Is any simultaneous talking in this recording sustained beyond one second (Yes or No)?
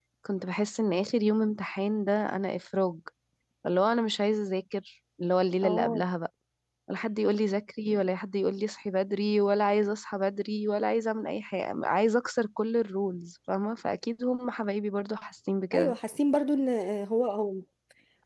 No